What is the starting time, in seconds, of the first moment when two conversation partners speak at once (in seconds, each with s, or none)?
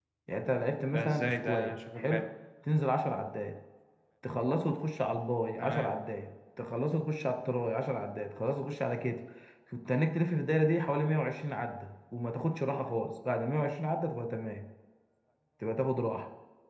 0.9 s